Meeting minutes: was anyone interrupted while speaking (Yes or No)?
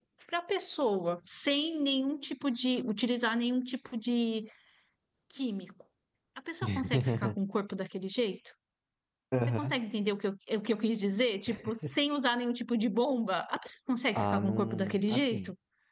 Yes